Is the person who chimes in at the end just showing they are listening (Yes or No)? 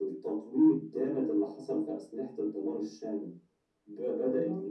Yes